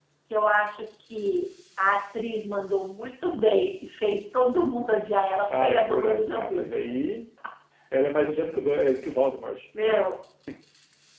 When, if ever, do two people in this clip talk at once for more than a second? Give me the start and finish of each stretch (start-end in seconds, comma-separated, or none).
5.6-7.0